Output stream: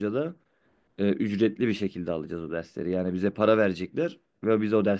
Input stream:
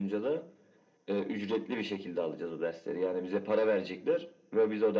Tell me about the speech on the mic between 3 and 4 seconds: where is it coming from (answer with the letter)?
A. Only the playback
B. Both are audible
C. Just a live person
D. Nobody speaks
A